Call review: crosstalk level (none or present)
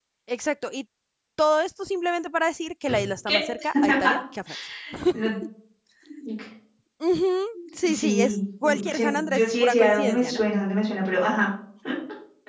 present